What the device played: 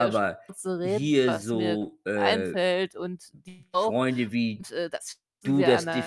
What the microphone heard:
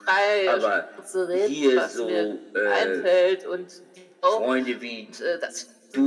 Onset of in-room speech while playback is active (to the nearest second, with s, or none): none